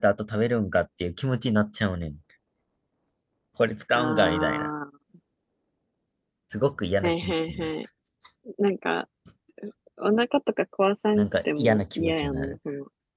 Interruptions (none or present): present